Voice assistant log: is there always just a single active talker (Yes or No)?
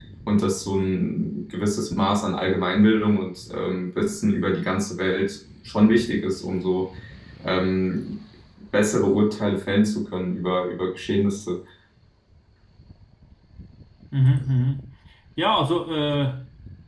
Yes